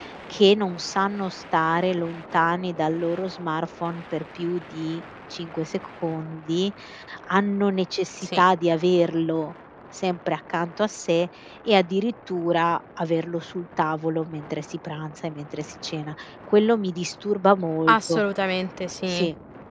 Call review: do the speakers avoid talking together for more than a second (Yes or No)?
Yes